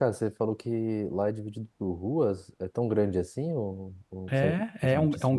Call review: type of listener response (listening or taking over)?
taking over